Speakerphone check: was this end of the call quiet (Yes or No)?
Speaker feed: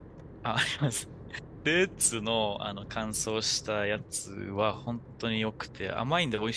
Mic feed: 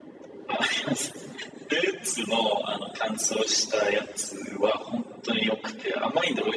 Yes